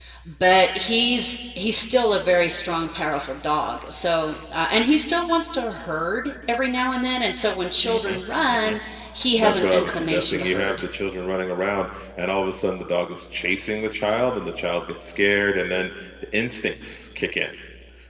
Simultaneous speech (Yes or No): Yes